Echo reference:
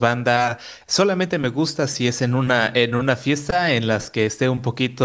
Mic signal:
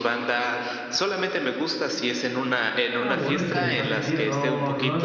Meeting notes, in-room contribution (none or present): present